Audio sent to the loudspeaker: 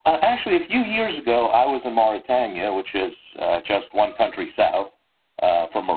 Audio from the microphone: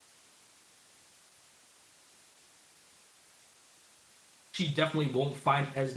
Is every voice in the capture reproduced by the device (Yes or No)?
No